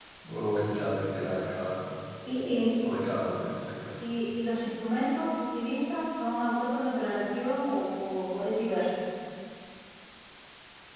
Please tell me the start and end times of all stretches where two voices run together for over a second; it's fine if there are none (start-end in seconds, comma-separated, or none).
none